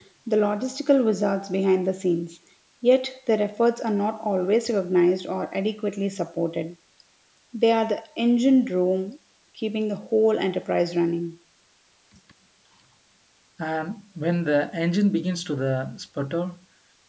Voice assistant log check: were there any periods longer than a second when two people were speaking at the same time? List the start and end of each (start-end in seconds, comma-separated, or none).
none